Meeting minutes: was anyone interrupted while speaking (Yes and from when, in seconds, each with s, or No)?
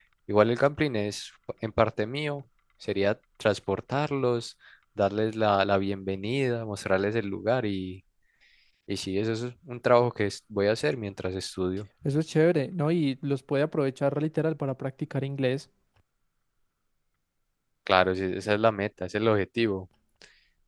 No